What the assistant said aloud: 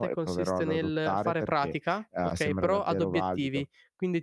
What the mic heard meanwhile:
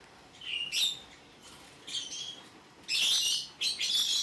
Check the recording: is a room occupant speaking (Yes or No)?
No